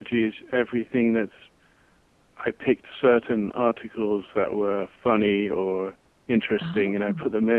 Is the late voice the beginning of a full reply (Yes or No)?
No